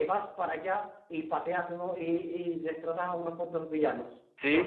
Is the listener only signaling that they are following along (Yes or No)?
No